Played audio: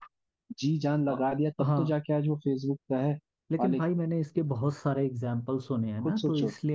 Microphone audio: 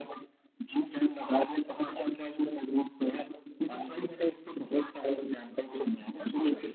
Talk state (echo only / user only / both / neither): echo only